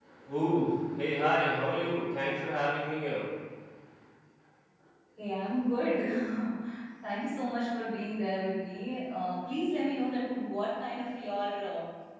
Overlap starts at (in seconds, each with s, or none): none